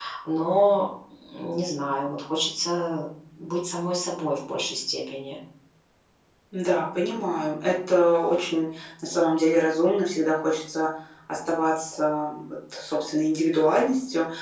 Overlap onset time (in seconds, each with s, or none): none